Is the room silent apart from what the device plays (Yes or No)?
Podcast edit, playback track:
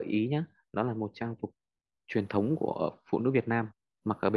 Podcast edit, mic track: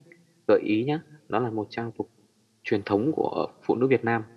Yes